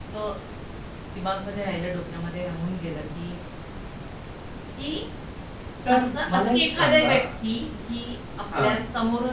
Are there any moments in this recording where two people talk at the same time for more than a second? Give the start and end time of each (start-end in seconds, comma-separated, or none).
5.9-7.1